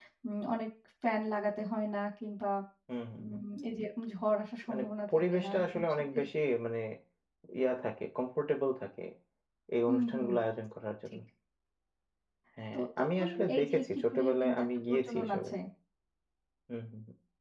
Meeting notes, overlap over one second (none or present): present